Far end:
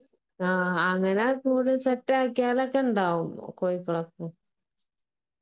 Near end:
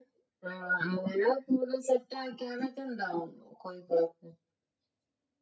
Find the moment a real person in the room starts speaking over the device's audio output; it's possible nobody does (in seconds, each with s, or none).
none